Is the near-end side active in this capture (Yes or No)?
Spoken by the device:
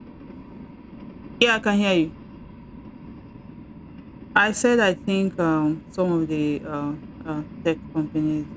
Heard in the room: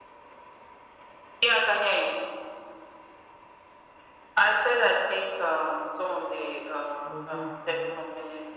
Yes